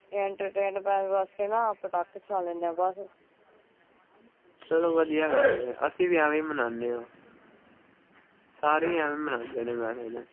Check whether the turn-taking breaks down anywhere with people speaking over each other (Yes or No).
No